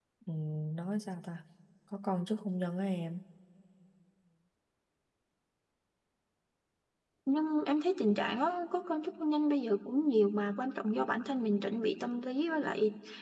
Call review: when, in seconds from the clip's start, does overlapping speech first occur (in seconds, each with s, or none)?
none